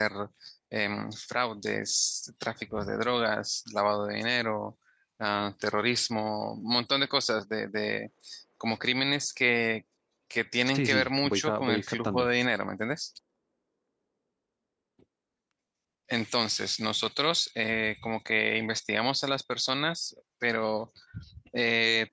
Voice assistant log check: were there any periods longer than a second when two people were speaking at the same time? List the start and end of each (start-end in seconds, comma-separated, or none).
10.7-12.3